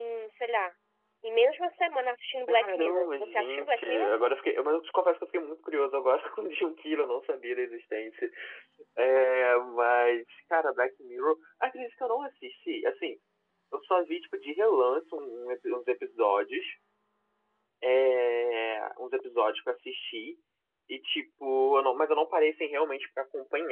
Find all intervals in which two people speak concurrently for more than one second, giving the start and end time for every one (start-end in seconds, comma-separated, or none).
2.5-4.1